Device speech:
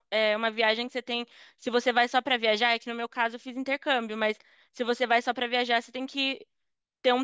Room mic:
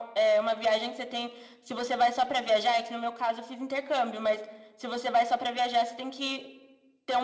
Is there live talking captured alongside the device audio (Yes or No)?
No